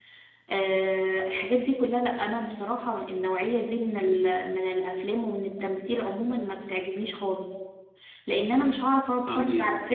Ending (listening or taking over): listening